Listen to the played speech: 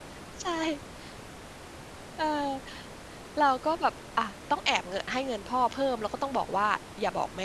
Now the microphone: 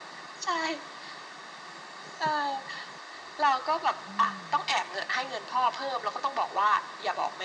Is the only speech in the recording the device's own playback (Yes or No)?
No